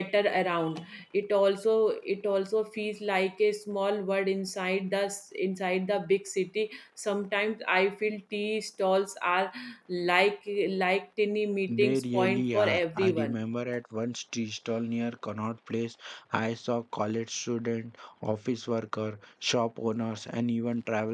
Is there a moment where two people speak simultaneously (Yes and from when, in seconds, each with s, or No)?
Yes, from 11.7 s